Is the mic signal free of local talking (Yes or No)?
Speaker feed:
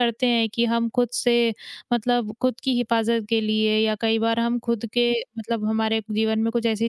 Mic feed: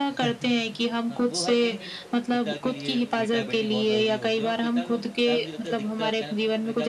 No